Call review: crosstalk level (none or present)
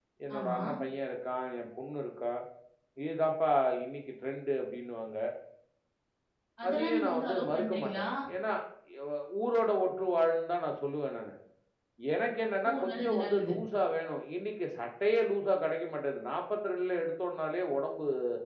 present